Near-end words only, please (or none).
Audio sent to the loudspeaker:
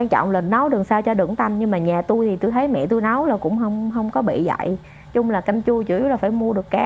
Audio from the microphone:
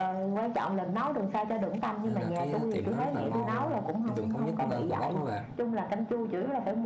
nên là cái tiệm nó rất là ngon luôn trên đường Thống Nhất ờ, Gò Vấp đó bạn